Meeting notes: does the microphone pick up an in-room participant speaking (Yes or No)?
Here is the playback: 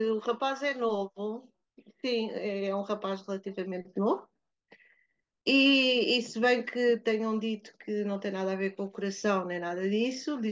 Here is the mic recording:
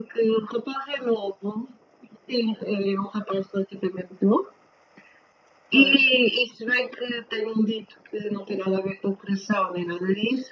Yes